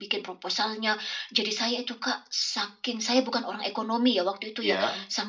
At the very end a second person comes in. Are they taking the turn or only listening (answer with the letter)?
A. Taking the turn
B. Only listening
B